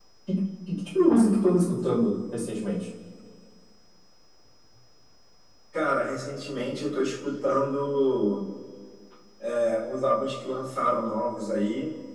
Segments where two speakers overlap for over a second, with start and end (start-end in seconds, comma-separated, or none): none